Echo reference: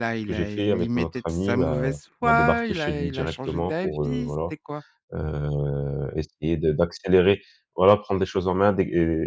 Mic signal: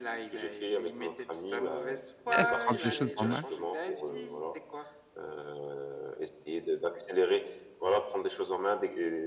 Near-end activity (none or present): present